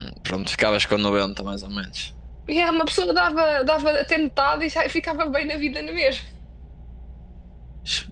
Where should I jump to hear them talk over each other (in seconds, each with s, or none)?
none